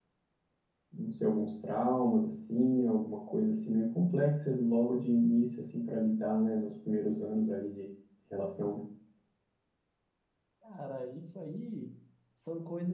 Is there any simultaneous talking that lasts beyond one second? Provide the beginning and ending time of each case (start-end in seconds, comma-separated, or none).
none